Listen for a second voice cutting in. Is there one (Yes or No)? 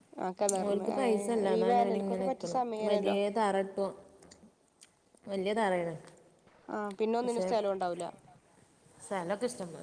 Yes